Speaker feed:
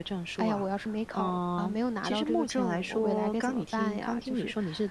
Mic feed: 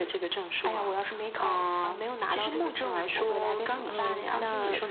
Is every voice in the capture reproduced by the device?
No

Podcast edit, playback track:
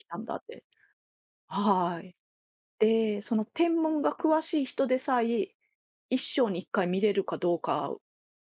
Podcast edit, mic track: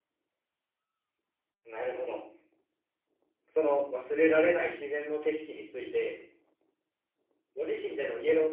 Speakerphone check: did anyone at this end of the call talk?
Yes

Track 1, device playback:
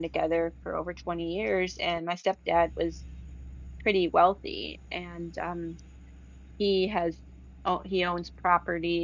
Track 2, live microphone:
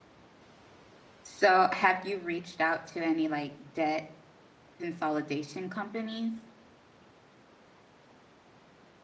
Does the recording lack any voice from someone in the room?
No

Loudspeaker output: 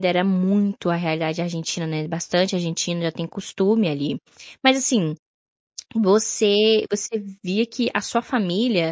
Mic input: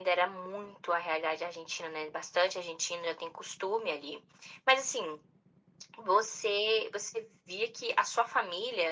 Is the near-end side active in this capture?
No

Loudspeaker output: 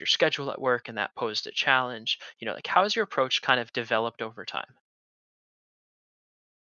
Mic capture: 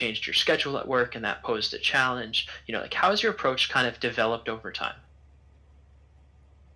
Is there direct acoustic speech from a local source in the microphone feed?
No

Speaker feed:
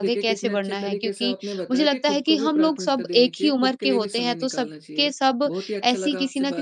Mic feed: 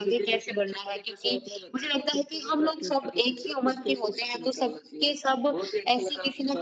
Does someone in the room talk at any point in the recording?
No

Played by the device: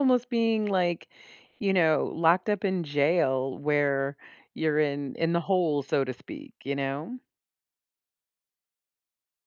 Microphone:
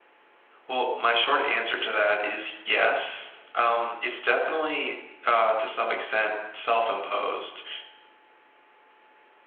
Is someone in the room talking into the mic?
Yes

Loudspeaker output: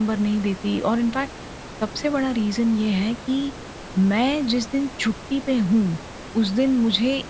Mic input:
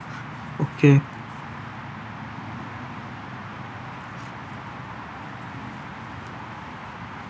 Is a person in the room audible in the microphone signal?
Yes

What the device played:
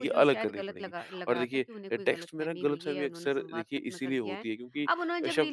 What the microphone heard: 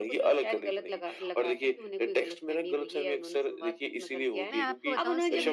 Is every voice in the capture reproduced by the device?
No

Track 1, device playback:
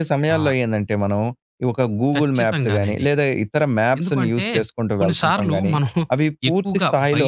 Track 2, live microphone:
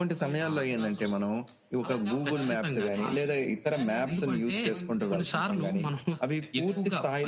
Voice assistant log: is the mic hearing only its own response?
No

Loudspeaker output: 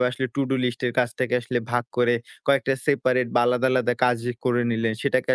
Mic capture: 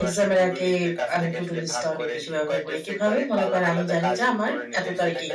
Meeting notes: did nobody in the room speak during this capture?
No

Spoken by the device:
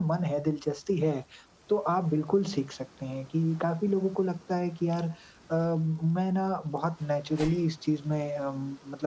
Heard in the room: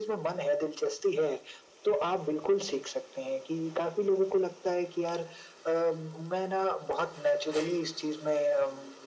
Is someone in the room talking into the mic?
No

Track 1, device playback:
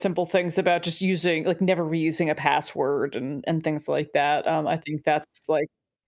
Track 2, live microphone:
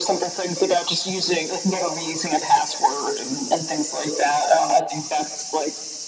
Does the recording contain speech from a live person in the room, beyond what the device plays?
No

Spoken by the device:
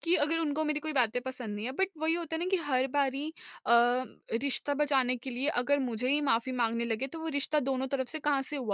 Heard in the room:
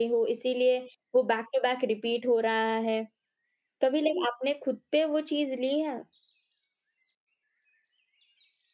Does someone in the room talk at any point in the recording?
Yes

